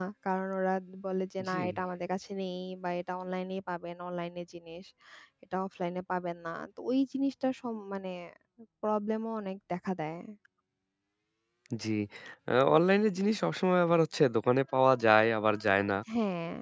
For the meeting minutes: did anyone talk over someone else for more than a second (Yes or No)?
No